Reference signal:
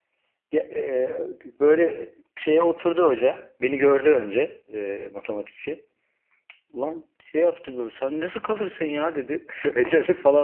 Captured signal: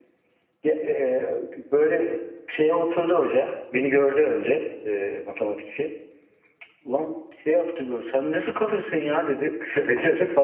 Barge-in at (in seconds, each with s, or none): none